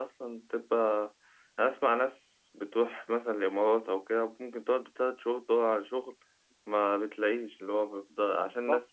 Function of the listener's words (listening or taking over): listening